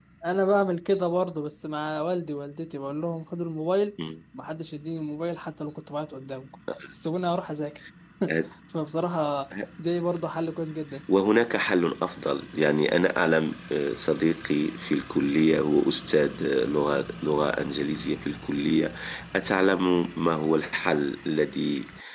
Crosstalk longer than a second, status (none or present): none